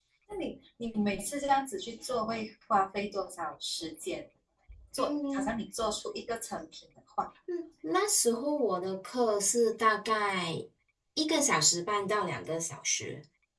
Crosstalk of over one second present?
No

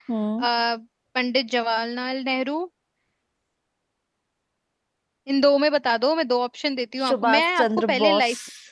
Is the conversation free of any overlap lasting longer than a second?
No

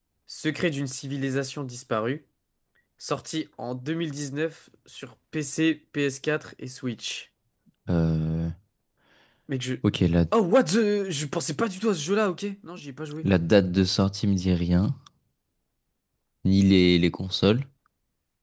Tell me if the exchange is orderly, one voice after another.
Yes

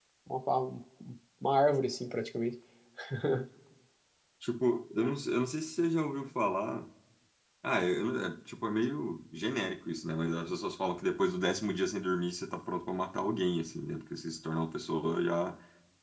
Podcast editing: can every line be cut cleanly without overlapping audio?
Yes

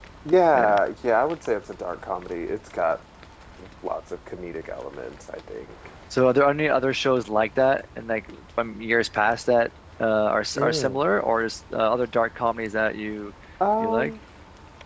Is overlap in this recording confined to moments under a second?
Yes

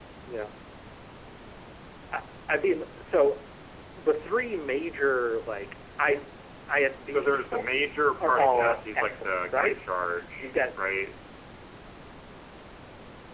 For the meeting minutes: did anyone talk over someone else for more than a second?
Yes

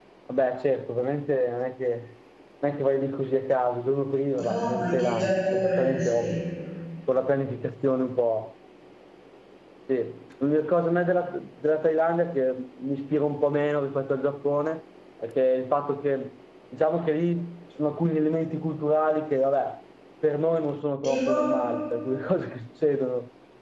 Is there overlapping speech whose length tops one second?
Yes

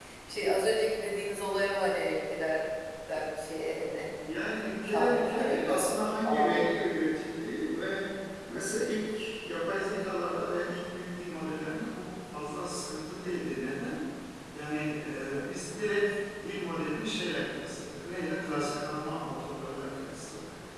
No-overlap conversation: No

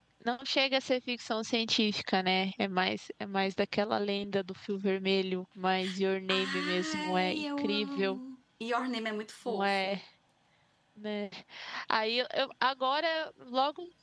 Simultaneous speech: Yes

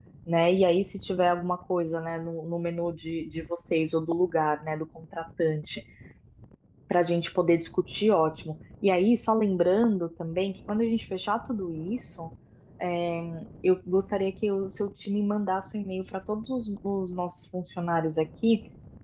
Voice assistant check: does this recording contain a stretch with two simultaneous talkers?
No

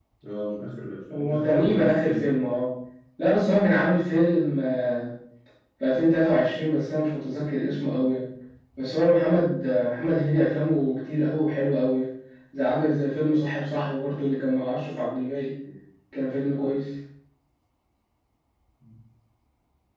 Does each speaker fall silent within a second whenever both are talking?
No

